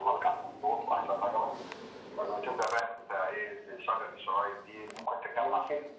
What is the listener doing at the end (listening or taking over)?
taking over